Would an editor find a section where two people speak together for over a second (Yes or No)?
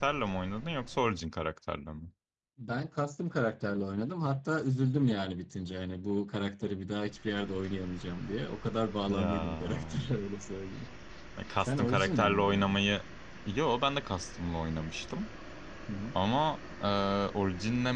Yes